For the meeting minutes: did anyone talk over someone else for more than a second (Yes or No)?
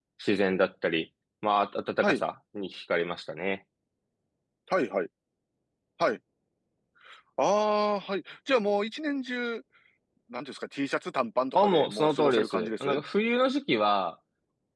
Yes